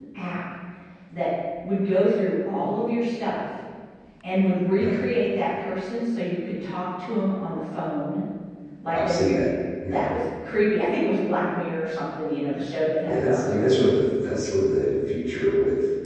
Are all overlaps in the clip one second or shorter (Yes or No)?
Yes